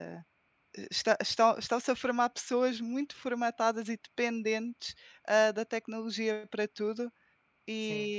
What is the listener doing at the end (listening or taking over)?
listening